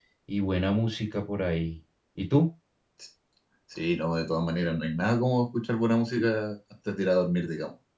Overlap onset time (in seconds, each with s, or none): none